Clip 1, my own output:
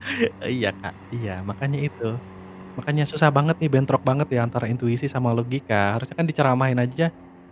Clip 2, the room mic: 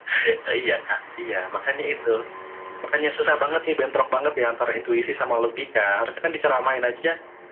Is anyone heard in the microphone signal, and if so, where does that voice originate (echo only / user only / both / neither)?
echo only